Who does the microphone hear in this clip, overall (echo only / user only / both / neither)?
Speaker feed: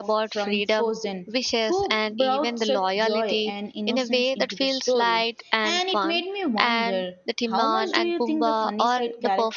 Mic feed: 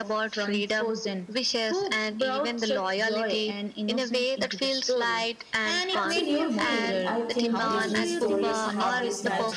both